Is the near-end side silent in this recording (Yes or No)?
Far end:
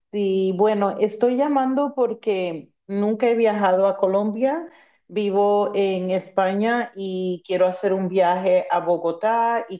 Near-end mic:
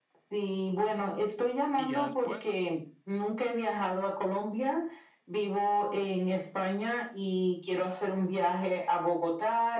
No